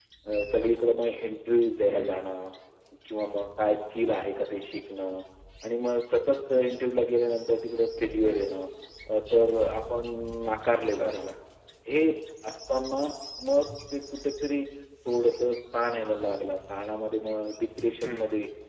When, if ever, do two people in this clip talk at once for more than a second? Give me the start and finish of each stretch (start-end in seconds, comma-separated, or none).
none